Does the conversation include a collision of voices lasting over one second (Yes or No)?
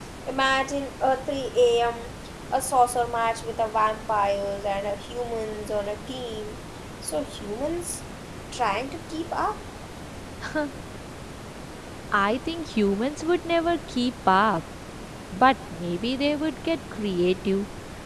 No